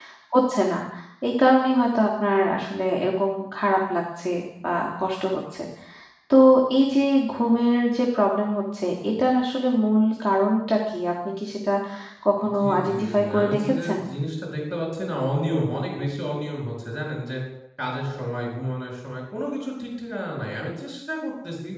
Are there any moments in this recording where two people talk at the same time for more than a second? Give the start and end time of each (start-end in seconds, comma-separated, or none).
12.6-14.0